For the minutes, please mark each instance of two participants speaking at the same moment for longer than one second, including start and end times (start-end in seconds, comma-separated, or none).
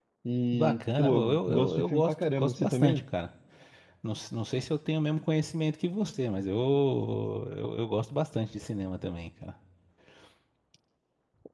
0.5-3.0